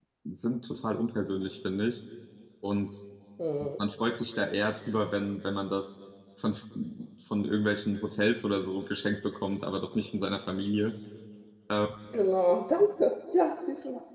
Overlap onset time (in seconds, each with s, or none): none